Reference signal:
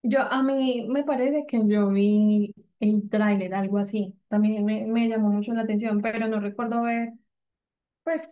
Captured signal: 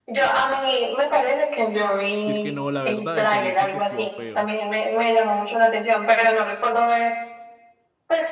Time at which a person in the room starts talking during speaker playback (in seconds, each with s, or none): 2.2 s